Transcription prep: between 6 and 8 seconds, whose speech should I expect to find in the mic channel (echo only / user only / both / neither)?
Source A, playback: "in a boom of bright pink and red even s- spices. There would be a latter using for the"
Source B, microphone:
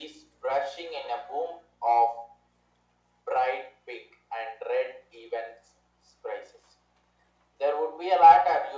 echo only